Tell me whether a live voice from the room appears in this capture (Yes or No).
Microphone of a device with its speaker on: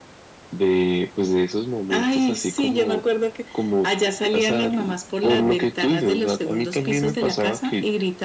No